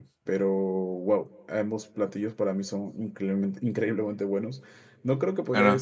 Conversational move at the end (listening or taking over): listening